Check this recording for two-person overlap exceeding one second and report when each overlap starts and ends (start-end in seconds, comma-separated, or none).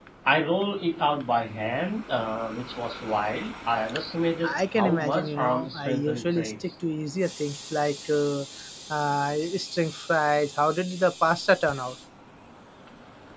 4.4-6.7